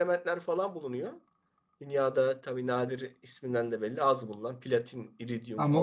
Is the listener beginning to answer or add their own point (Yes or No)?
Yes